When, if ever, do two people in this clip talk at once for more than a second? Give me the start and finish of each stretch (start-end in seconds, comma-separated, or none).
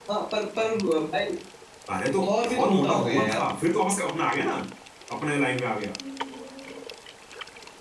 2.3-3.5